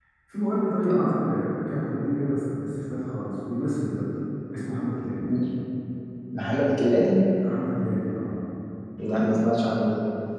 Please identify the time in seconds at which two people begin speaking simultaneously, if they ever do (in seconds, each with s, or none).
none